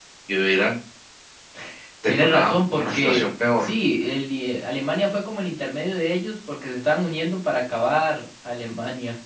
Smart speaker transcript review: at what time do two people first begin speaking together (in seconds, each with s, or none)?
2.0 s